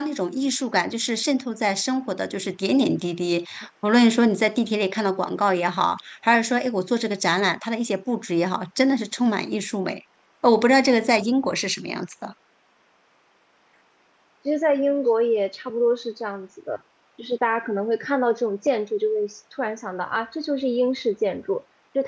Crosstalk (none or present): none